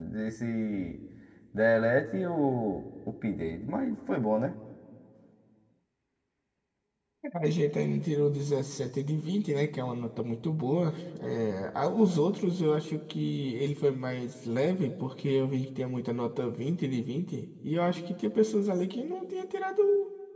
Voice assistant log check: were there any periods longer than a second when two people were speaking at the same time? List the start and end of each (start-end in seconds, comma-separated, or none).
none